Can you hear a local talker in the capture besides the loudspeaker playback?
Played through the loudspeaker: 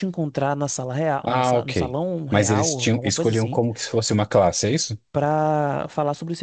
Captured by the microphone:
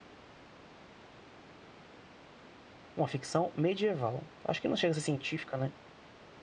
Yes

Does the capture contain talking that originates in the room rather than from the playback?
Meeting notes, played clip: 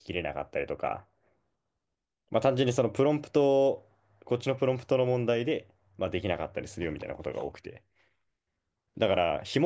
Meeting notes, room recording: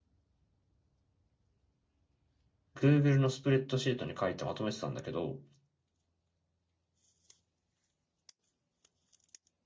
Yes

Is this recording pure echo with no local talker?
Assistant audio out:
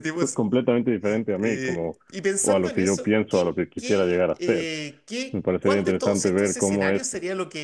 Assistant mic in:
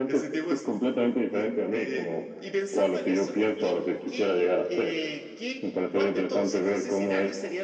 Yes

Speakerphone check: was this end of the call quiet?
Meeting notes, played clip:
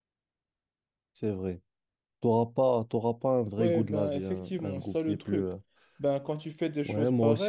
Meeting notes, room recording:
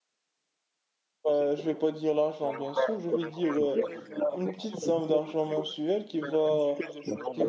No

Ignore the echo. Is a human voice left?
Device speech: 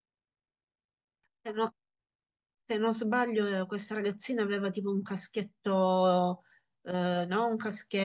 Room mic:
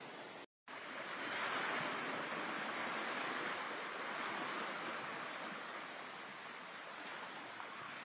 No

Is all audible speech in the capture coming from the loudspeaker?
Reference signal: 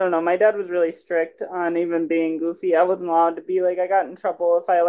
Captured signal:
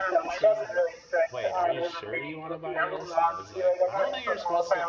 No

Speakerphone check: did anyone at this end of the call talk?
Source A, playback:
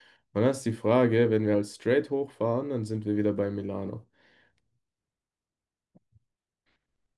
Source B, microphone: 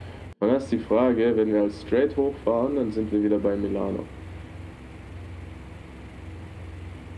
No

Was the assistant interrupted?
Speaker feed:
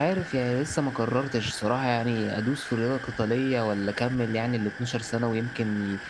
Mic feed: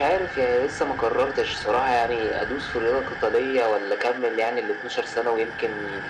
No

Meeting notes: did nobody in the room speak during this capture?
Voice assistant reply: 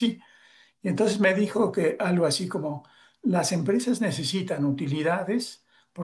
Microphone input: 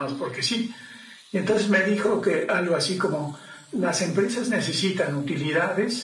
Yes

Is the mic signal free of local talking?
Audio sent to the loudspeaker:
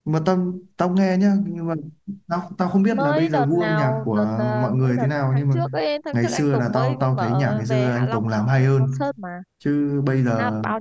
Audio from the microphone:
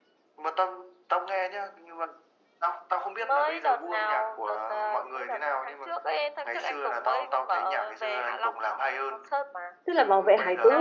No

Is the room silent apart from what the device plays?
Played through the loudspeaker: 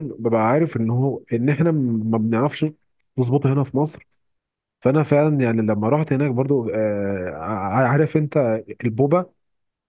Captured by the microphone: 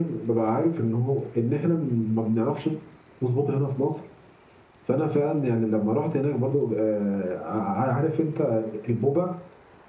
Yes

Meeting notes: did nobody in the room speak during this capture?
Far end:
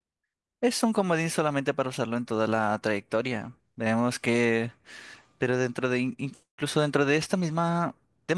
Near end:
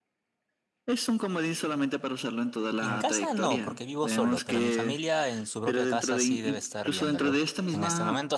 No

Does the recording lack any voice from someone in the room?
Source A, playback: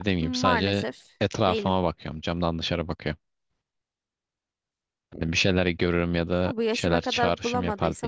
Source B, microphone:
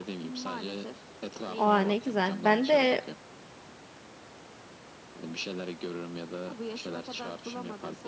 No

